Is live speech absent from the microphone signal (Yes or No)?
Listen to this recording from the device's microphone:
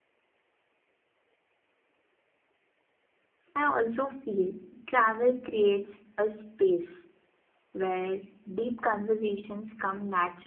No